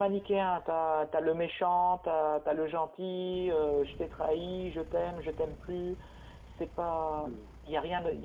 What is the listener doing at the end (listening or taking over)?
listening